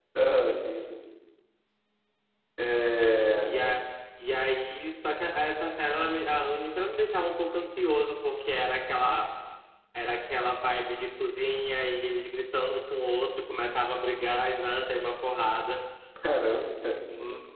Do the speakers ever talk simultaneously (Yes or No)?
No